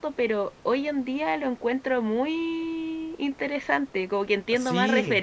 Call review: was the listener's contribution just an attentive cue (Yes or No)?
Yes